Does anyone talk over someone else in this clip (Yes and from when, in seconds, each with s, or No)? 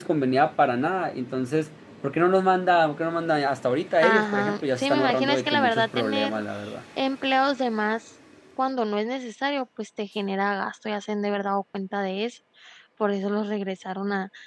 Yes, from 4.0 s